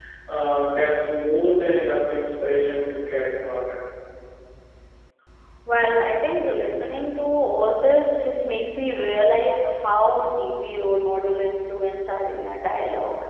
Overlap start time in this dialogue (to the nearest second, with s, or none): none